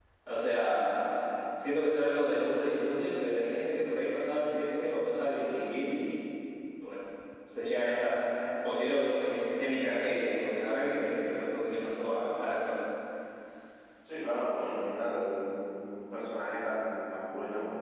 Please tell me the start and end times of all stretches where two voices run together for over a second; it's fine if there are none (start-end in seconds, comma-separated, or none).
none